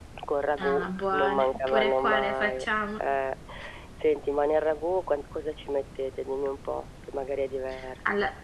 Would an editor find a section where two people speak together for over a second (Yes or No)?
Yes